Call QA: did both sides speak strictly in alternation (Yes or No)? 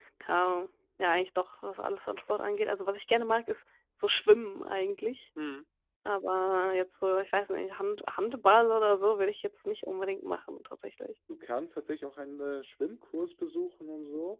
Yes